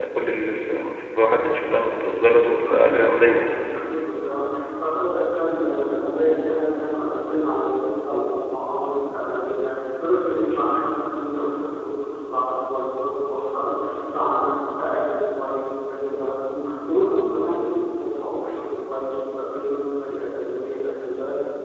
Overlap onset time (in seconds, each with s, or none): 2.0 s